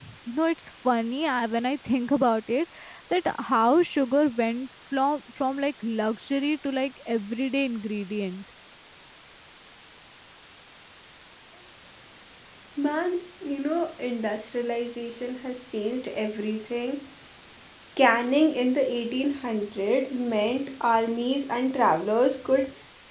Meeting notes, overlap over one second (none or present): none